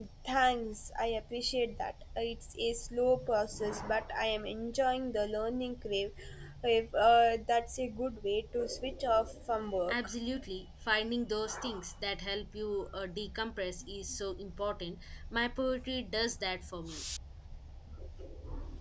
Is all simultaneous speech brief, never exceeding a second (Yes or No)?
Yes